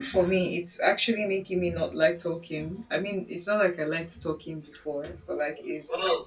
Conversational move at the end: listening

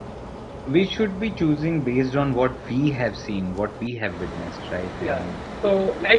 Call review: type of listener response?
taking over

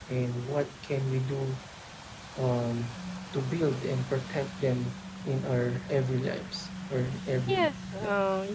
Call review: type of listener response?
taking over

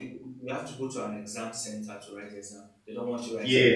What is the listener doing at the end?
taking over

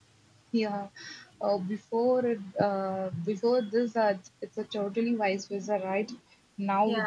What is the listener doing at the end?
listening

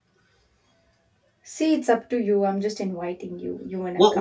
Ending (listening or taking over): taking over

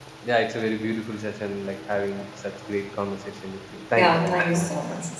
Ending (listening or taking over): taking over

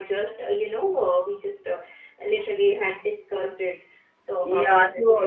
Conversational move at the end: taking over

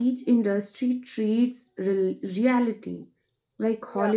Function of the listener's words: listening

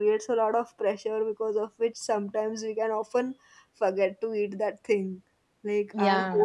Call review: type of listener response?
listening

